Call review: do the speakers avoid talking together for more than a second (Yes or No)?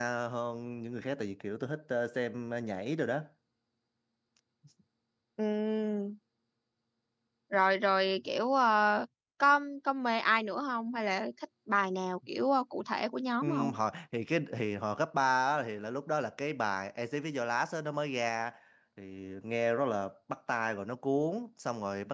Yes